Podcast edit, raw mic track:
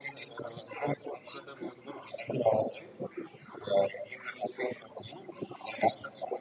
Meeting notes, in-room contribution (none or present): present